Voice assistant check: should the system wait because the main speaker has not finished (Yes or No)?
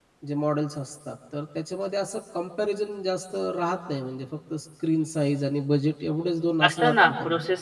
No